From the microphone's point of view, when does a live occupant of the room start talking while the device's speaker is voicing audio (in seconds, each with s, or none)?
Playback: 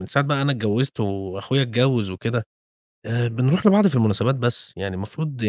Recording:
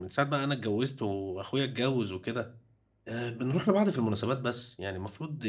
none